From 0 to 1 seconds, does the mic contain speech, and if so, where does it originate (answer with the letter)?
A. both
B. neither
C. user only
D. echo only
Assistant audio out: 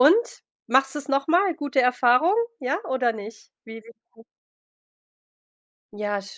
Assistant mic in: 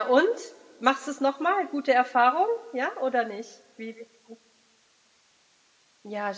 D